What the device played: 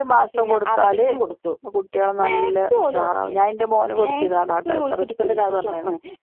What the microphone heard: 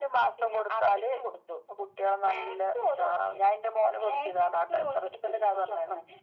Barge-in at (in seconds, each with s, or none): none